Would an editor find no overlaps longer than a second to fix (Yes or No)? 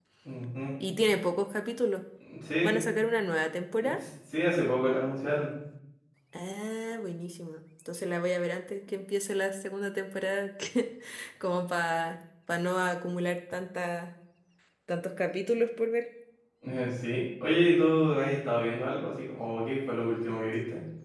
Yes